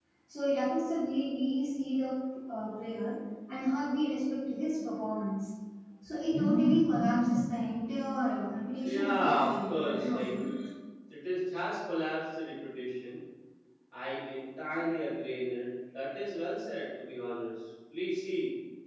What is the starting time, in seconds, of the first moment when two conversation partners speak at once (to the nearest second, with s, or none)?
9 s